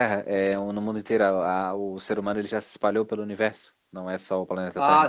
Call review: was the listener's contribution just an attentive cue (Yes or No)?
No